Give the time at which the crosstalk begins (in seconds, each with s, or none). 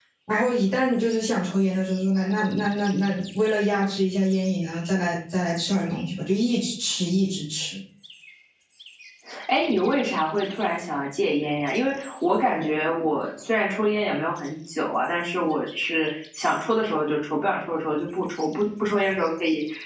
none